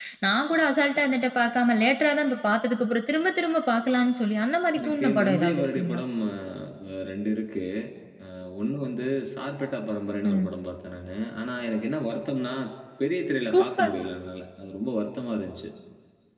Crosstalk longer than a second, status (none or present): present